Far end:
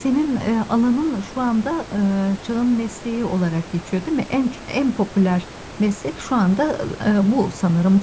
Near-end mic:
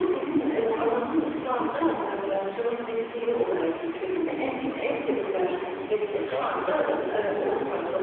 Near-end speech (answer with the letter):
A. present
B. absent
A